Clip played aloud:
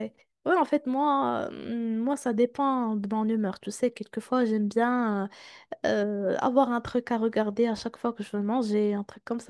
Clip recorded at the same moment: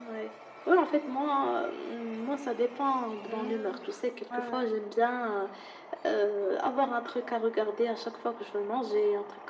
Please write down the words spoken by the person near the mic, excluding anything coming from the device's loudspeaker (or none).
Hmm. Ouais, ouais.